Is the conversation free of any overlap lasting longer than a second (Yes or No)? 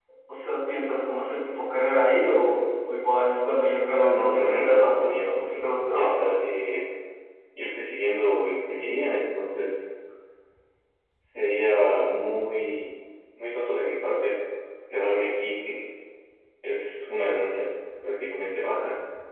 No